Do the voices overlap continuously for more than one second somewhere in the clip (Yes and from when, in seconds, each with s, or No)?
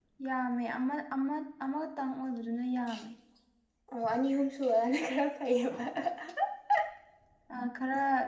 No